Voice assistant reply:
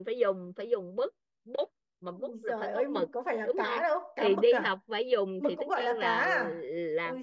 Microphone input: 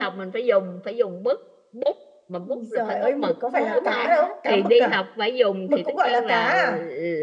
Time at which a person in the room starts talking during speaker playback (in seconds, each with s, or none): 3.5 s